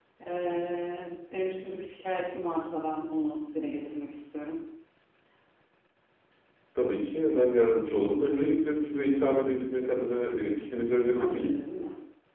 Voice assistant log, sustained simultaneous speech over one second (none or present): none